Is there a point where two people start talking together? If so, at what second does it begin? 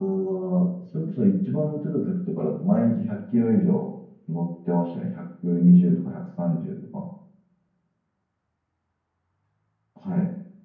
none

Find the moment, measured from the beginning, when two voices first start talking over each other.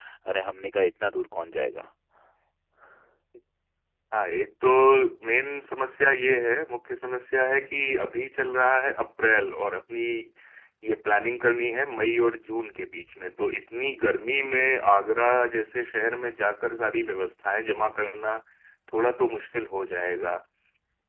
none

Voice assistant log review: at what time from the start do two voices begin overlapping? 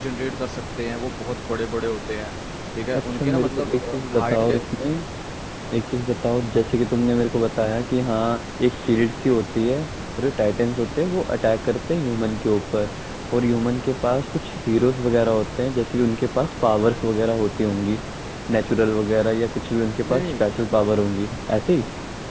2.9 s

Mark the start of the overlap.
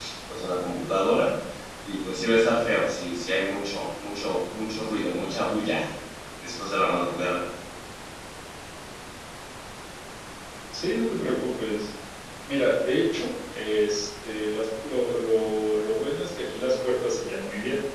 none

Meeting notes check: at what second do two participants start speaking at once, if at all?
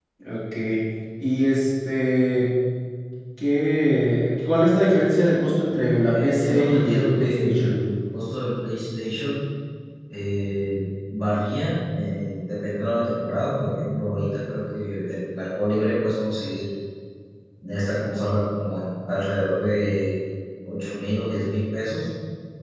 6.0 s

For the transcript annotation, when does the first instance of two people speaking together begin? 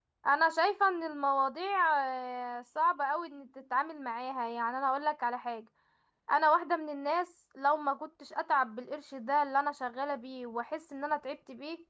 none

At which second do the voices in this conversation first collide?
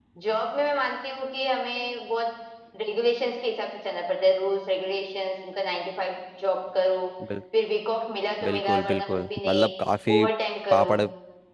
8.4 s

